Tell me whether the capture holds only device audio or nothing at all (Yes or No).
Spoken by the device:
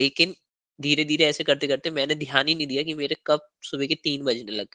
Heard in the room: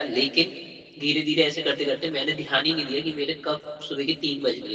Yes